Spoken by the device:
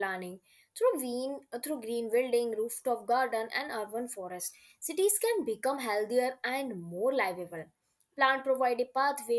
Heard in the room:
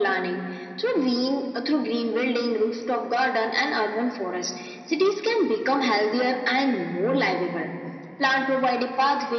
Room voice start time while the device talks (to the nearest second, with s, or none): none